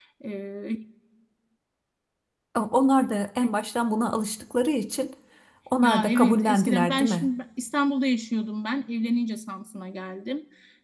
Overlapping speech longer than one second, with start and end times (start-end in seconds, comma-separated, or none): 5.8-7.3